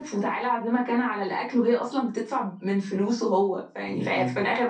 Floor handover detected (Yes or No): No